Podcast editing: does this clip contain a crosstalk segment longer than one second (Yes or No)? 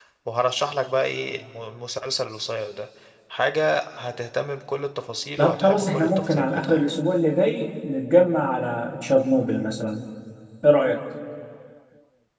Yes